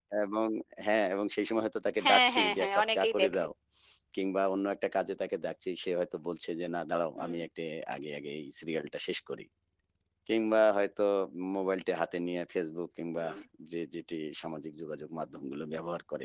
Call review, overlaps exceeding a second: present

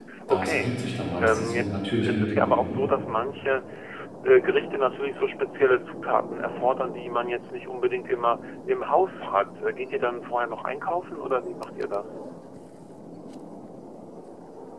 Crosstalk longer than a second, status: present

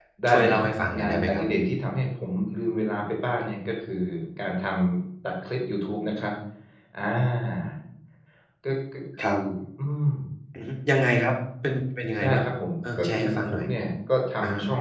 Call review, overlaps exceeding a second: present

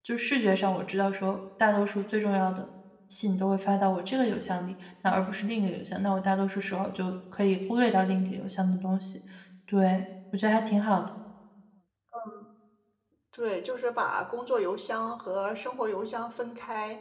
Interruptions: none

